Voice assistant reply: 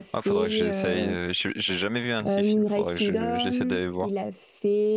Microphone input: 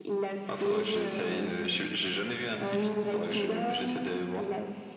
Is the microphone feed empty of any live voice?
Yes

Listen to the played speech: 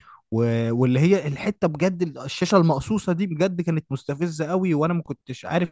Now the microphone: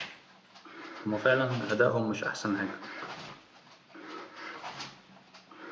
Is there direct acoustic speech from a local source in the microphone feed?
Yes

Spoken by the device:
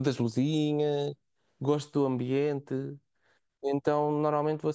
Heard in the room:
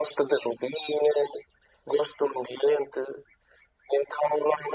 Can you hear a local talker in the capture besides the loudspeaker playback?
No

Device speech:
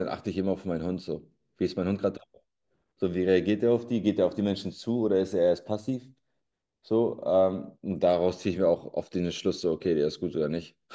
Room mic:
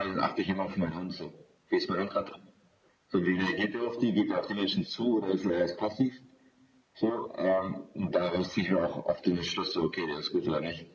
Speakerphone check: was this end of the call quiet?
Yes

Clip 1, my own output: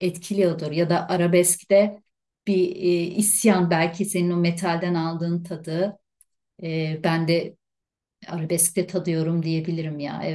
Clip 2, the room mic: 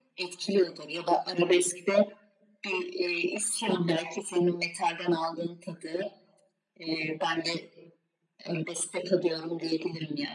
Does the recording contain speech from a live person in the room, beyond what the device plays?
No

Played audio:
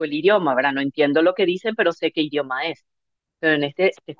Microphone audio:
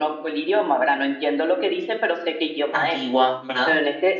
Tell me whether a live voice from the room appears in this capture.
Yes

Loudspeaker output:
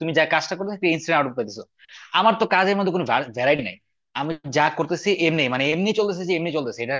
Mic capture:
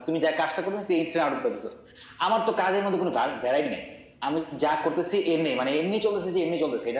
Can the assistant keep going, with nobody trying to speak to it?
Yes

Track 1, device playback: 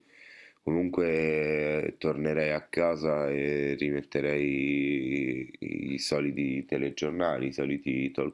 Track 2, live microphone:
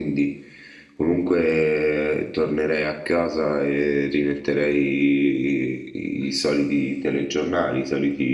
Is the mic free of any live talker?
Yes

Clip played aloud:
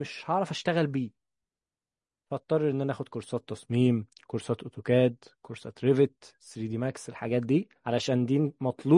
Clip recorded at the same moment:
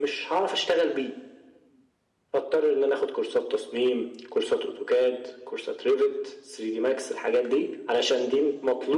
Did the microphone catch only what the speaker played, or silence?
Yes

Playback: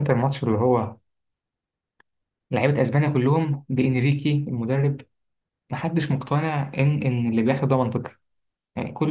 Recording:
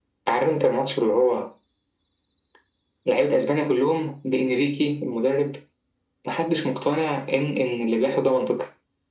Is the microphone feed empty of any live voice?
Yes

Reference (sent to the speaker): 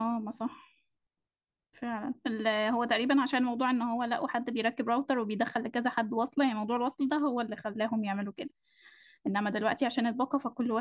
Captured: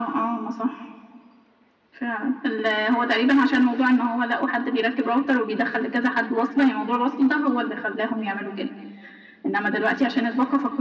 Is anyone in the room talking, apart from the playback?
No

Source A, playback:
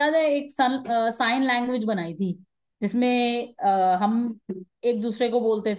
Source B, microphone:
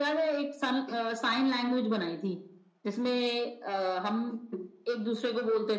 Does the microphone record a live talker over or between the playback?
No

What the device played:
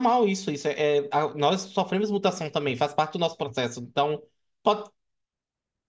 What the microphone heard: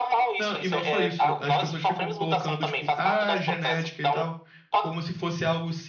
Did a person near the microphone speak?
Yes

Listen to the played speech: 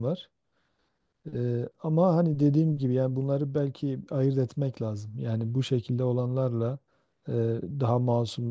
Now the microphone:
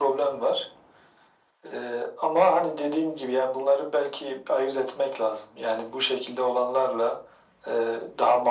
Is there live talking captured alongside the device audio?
No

